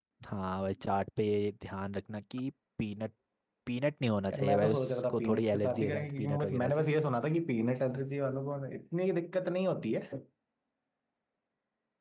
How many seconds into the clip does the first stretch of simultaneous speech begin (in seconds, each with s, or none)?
4.3 s